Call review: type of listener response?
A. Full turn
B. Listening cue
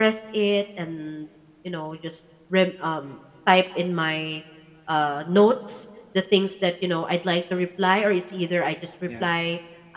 B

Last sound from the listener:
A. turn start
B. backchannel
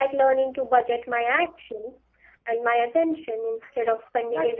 A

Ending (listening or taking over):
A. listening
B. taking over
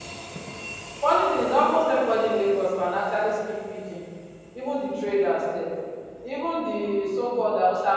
A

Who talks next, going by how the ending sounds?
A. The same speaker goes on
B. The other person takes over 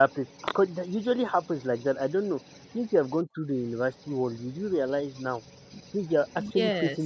A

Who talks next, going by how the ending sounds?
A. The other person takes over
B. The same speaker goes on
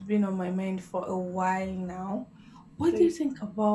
B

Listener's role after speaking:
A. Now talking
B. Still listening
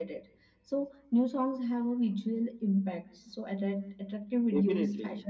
B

